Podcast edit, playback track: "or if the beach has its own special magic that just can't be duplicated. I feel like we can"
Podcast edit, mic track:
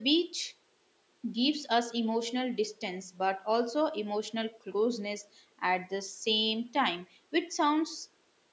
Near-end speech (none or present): present